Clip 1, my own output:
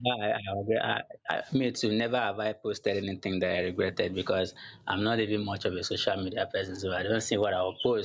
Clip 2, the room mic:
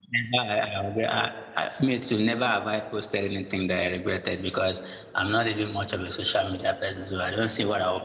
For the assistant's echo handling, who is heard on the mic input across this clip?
echo only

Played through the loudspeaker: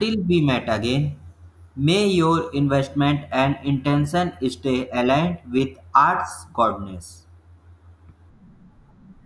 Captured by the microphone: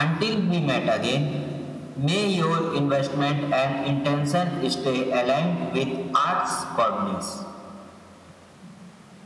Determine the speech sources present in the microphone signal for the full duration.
echo only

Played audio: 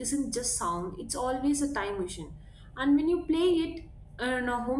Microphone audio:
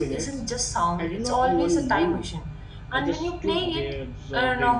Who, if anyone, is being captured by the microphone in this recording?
both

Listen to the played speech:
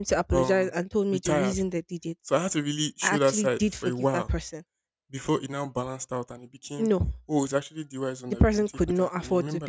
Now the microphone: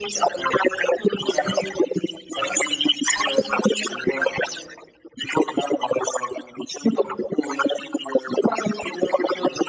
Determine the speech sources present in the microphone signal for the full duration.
echo only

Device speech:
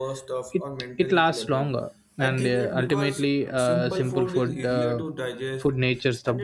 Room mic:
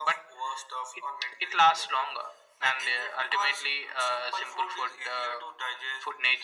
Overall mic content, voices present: echo only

